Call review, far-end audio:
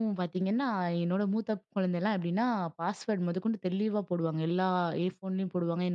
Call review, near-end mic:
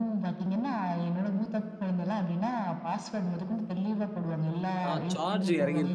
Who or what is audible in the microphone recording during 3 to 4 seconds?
echo only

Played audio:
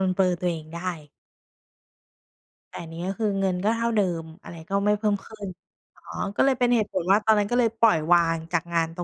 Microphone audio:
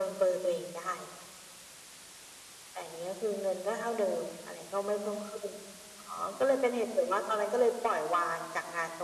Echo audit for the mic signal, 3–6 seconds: echo only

